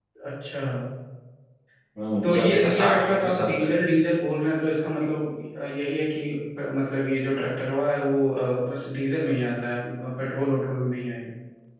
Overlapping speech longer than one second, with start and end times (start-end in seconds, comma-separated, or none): 2.2-3.7